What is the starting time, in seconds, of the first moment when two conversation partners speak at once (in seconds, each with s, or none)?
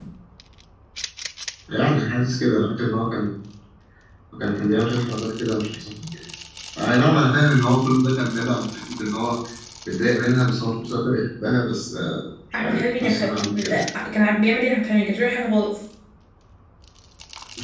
12.5 s